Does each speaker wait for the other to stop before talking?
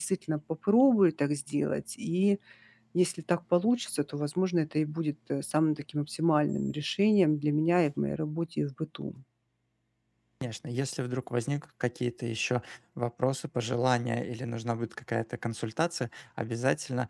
Yes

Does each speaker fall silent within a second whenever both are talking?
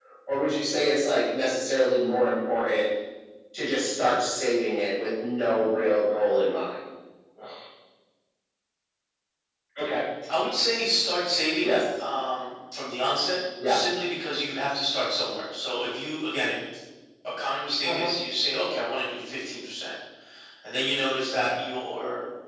Yes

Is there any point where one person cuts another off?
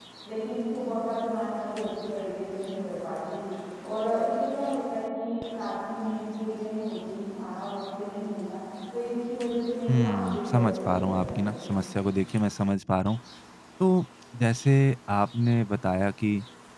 Yes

